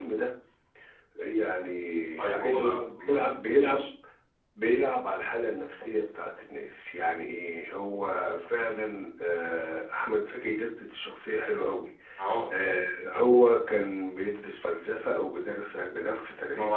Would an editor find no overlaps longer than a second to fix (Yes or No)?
No